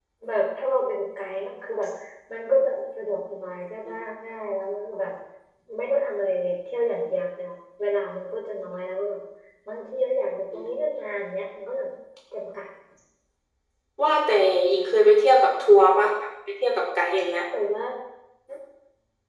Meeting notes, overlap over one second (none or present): none